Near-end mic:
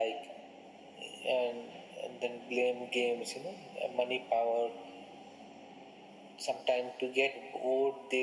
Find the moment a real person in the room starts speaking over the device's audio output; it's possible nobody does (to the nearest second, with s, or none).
none